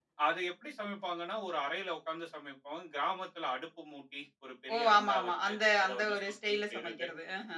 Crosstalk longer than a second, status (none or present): present